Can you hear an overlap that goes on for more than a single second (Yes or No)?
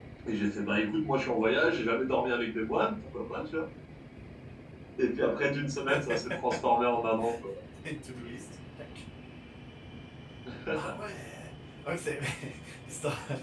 No